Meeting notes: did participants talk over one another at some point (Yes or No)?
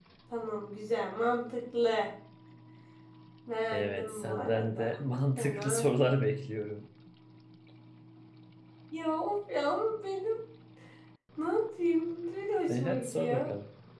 Yes